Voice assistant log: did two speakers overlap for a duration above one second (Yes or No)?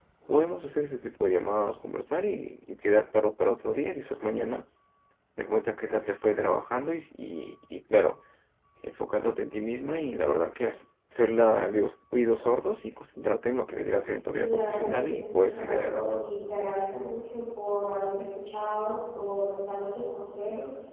Yes